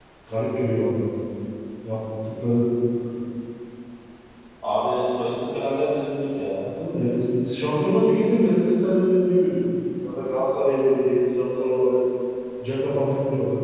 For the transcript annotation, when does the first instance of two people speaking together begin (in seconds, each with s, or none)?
none